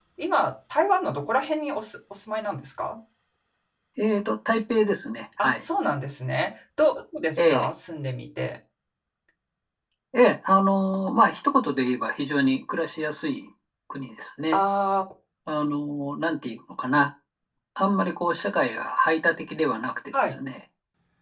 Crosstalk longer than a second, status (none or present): none